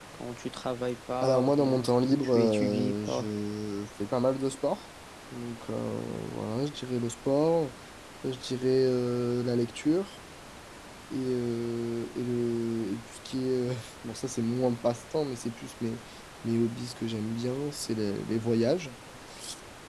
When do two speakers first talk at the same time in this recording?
1.2 s

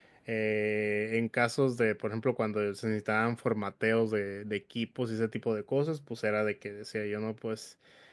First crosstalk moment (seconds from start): none

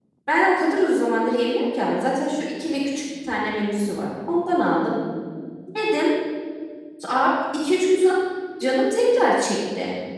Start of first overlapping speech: none

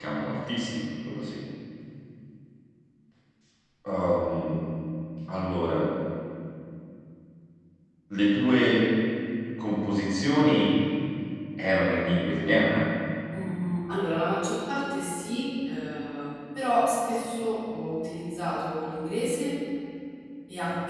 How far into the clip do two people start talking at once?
none

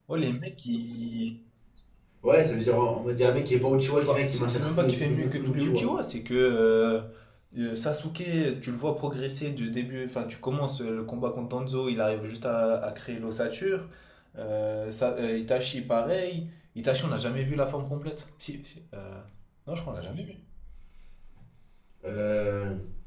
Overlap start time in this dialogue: 4.0 s

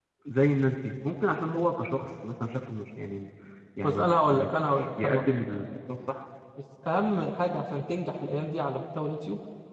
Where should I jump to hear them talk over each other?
3.8 s

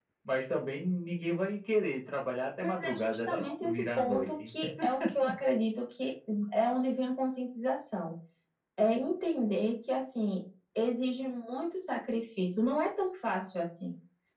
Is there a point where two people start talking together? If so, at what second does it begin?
2.6 s

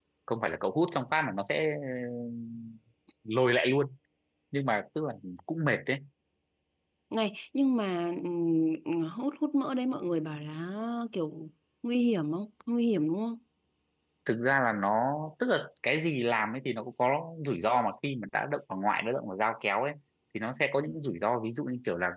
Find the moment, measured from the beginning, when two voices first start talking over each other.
none

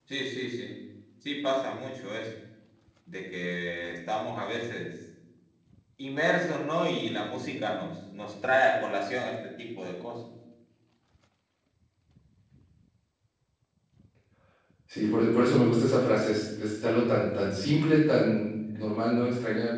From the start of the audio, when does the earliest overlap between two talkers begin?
none

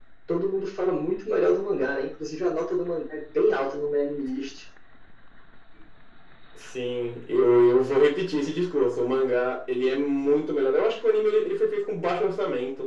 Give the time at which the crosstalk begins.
none

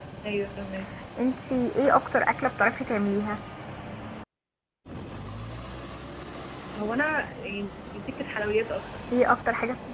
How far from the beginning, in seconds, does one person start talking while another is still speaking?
none

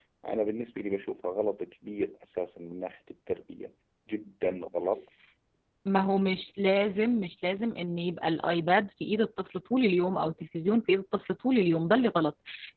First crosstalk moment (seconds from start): none

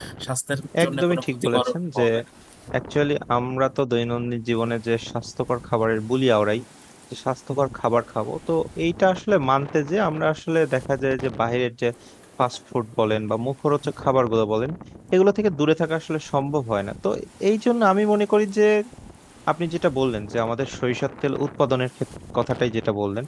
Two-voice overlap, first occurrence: 0.8 s

